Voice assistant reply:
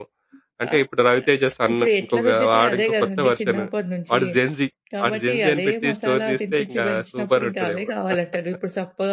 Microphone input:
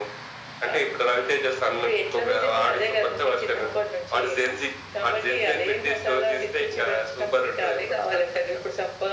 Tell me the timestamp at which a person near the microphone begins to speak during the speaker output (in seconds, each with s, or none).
none